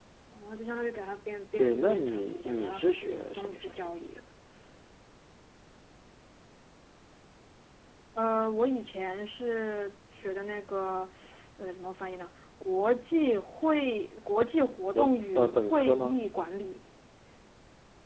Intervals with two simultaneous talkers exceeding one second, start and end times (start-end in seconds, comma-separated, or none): 1.6-4.2, 14.9-16.2